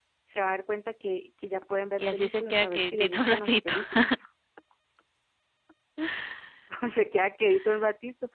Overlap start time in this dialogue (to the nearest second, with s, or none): 2 s